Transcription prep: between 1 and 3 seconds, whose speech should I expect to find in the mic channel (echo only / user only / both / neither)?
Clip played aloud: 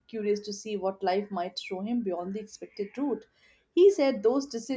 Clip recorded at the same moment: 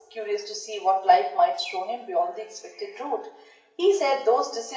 echo only